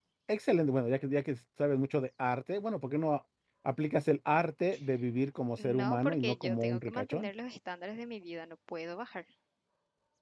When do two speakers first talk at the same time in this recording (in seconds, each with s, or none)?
5.6 s